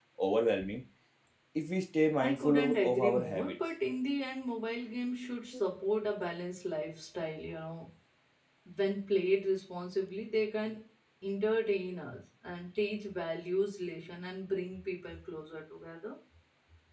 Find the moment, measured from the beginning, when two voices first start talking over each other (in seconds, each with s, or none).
2.2 s